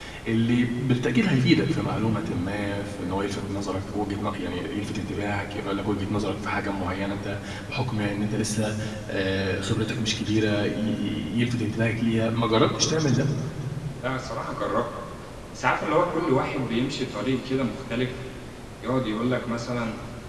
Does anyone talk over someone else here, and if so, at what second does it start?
none

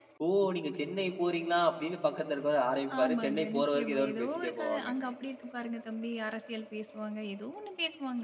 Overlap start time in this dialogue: 2.9 s

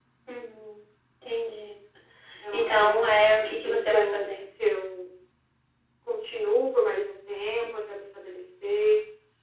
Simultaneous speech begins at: 2.5 s

